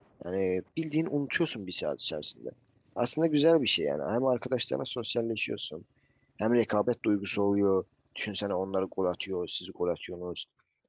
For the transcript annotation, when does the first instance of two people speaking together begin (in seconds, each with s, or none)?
none